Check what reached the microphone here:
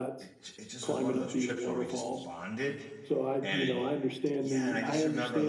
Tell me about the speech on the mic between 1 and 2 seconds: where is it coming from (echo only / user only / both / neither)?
both